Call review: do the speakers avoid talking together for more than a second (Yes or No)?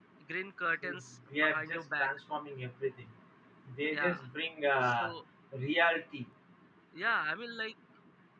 No